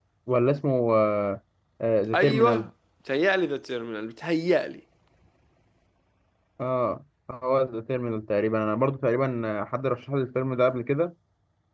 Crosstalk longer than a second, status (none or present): none